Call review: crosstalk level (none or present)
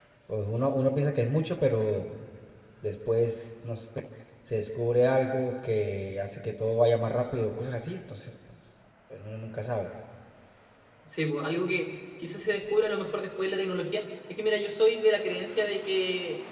none